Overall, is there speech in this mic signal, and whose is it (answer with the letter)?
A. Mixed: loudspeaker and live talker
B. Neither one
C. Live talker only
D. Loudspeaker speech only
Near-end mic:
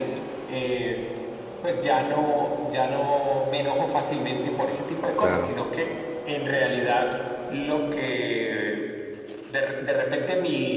A